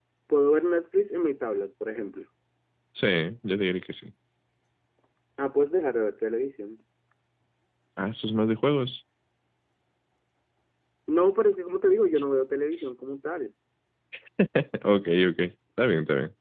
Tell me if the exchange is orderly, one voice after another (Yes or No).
Yes